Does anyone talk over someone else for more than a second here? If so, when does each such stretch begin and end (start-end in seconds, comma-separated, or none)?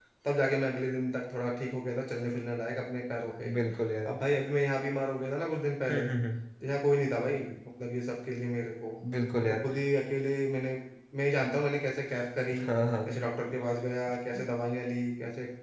none